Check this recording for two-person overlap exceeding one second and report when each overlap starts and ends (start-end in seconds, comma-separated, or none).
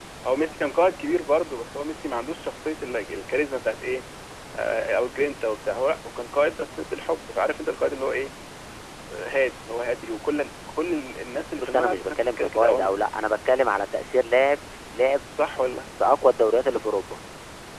11.6-12.9